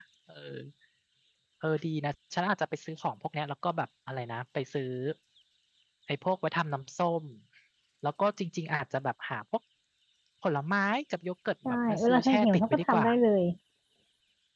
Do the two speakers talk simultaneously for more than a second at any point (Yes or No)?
Yes